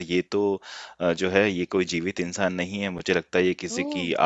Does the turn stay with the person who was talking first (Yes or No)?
Yes